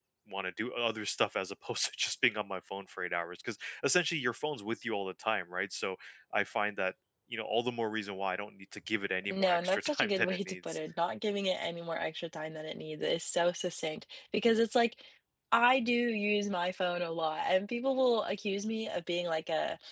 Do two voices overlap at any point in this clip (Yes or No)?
Yes